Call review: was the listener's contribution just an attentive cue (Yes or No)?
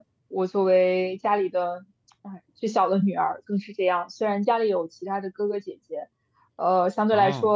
Yes